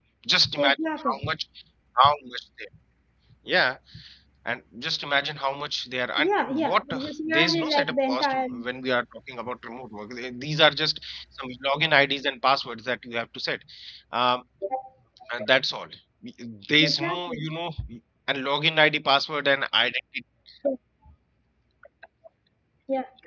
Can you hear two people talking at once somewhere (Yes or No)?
Yes